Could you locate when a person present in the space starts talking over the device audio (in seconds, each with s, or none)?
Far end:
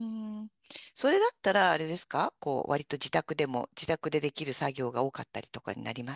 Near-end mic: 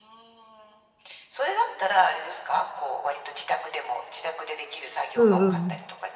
5.2 s